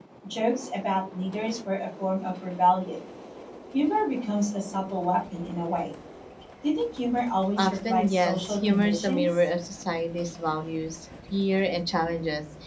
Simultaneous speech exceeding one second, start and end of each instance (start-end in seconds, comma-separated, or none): 7.6-9.3